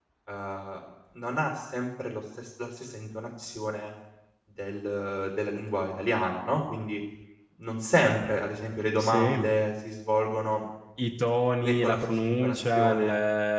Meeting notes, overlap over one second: present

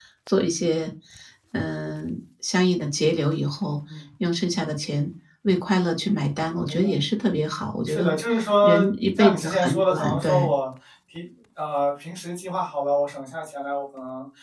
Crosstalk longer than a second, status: present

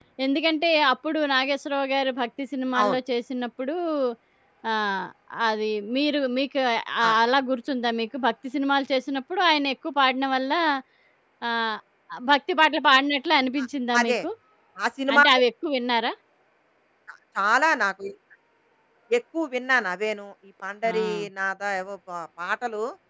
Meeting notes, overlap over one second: none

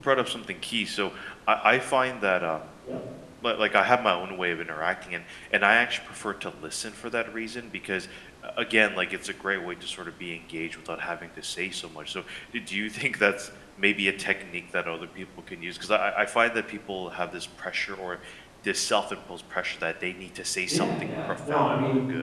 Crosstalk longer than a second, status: present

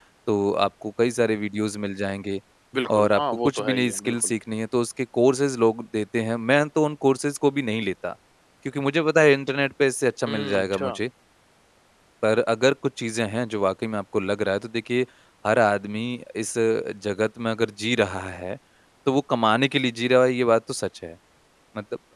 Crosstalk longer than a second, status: present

